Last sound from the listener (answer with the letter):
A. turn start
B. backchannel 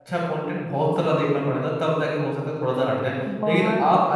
B